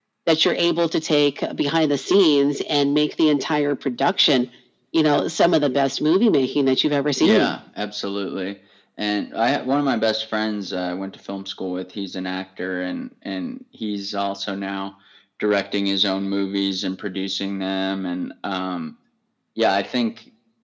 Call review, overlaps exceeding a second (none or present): none